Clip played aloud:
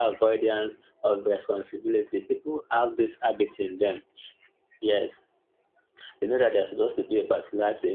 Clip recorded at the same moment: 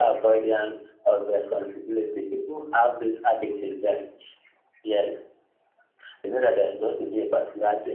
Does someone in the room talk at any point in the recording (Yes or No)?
No